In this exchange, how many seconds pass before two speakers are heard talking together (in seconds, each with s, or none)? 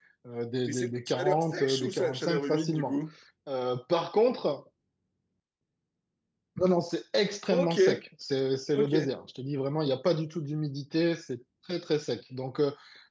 0.7 s